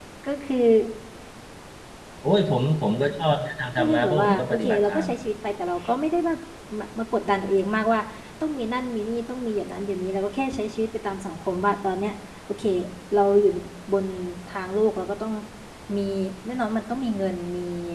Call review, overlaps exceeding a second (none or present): present